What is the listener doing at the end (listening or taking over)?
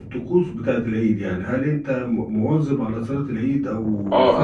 taking over